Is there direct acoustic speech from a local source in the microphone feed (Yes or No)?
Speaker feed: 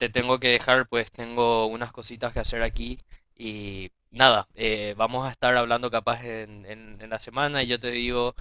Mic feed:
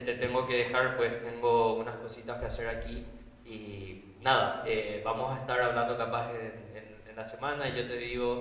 No